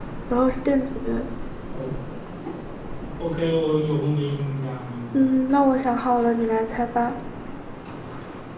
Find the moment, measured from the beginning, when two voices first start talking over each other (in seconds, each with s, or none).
none